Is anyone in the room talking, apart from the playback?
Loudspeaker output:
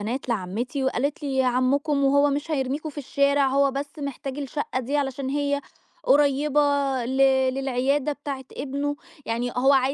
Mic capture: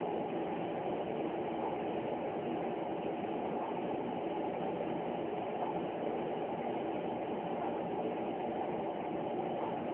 No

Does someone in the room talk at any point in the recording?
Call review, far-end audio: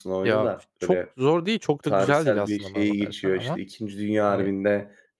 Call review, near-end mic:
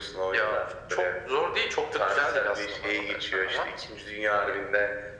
No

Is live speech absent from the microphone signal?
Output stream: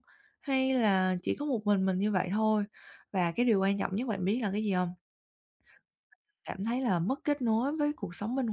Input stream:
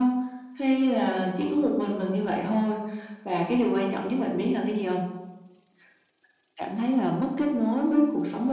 Yes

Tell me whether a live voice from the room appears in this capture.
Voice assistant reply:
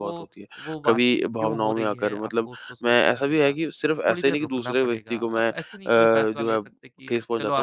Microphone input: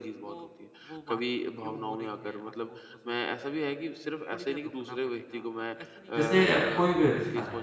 Yes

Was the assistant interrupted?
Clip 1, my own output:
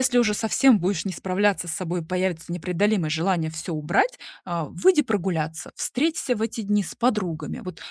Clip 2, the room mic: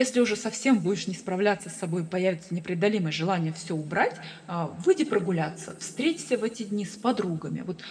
No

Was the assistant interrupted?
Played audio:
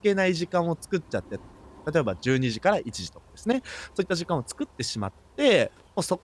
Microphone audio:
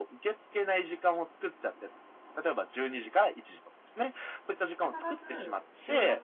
Yes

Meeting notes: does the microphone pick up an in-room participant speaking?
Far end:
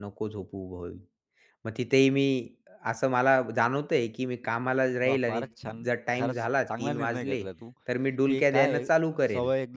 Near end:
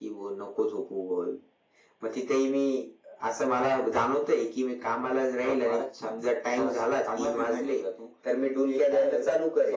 No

